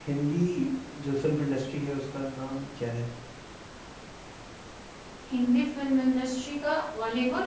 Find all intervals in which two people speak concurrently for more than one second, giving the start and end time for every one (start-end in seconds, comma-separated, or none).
none